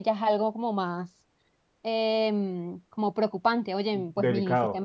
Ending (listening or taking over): taking over